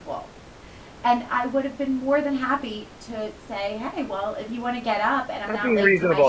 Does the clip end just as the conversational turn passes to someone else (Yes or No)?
Yes